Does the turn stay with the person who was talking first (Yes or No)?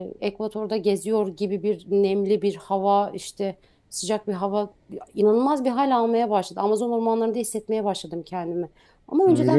No